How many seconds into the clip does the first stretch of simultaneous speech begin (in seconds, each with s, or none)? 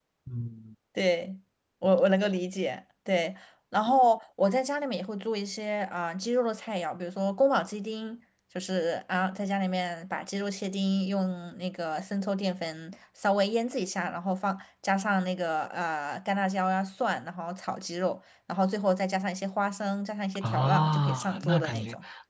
20.4 s